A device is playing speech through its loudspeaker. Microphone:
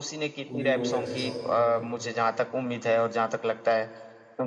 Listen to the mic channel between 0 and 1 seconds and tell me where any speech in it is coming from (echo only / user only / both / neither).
both